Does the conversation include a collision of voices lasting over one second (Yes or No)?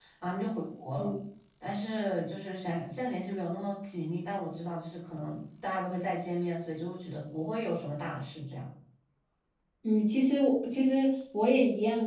No